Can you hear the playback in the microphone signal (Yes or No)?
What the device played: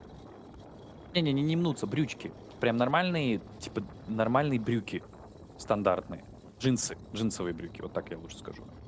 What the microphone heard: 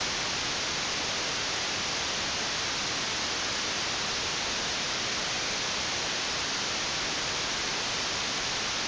No